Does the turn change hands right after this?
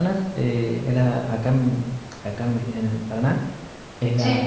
No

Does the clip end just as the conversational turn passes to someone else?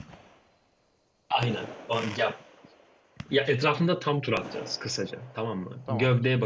No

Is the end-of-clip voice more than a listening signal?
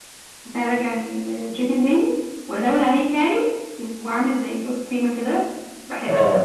Yes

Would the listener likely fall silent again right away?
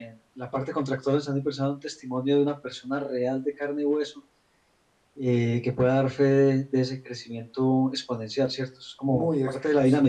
No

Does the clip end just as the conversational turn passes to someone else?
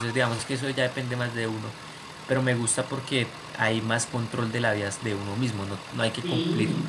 No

